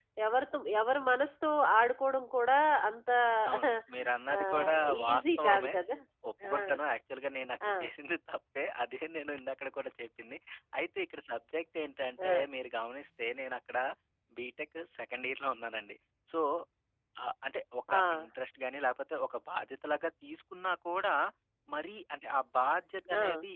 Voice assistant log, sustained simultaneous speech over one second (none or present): present